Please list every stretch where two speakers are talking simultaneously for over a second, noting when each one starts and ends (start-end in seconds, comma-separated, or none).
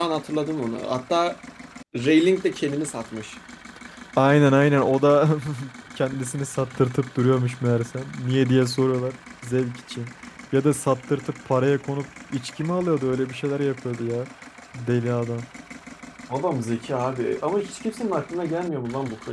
none